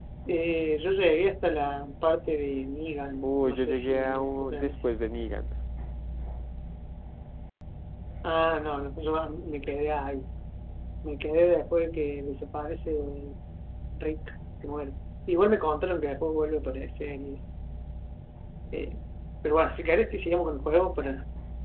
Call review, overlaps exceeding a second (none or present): present